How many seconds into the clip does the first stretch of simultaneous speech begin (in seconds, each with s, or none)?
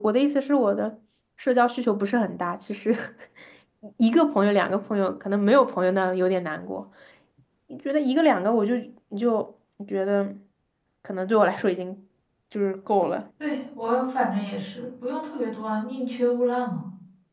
none